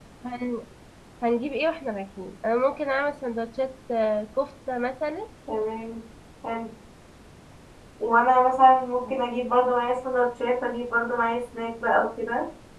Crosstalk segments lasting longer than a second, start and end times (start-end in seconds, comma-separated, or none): none